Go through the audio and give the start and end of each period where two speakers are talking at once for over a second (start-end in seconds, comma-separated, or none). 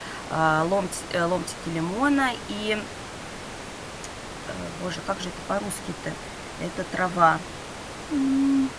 none